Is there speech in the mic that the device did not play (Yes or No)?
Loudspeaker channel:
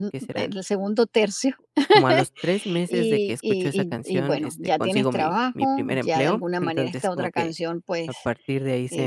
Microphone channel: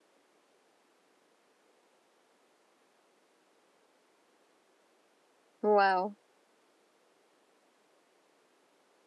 Yes